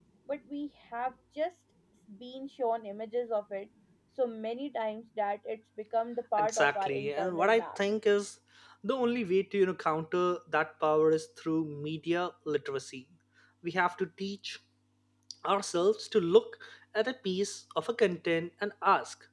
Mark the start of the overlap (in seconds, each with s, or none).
6.4 s